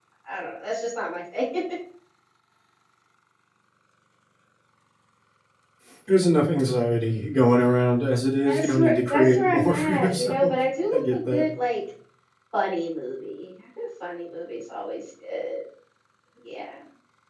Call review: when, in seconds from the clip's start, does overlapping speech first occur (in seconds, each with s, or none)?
8.4 s